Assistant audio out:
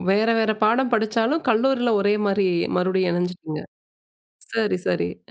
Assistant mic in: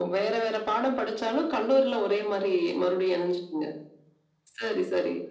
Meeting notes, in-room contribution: none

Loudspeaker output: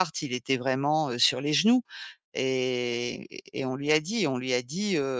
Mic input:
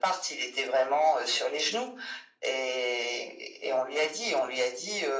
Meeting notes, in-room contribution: none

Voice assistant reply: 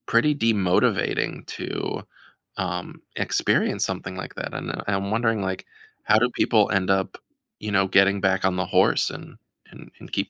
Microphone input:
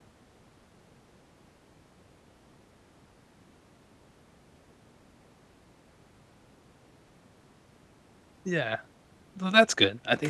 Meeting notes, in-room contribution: present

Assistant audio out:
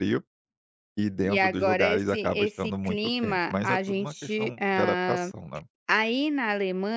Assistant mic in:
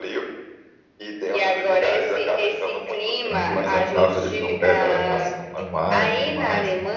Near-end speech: present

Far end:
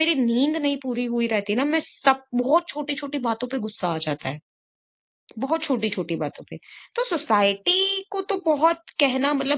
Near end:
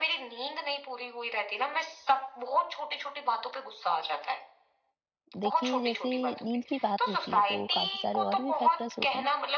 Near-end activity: present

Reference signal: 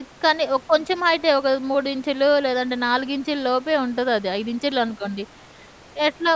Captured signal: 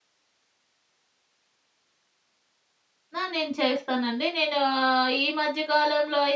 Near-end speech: present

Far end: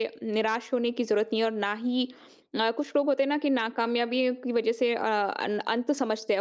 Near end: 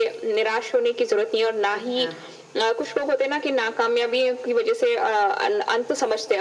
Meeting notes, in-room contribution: present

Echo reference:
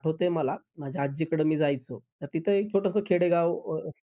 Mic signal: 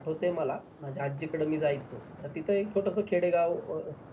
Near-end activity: none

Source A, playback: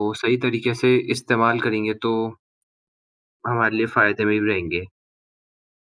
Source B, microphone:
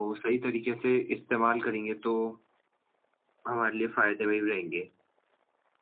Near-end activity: none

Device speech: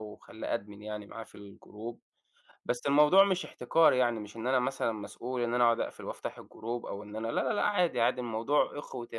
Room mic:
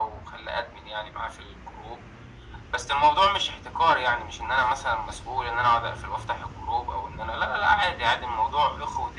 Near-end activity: none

